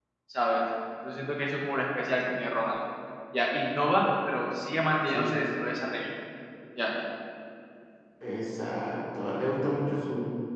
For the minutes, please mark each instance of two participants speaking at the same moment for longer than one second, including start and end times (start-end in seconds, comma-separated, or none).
none